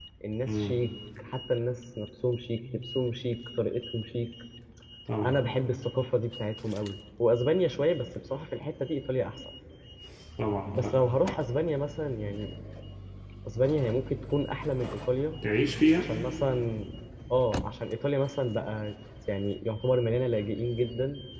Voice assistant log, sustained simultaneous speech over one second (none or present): none